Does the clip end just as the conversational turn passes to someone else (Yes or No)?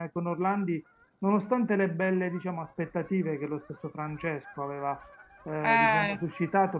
No